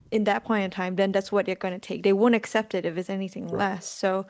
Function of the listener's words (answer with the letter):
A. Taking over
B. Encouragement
B